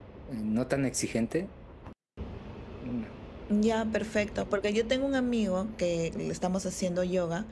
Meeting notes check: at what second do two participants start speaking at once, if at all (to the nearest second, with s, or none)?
none